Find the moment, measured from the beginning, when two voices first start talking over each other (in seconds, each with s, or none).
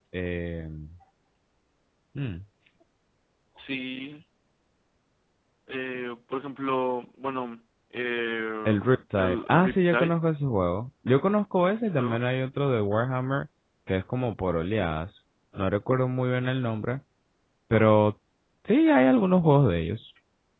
8.7 s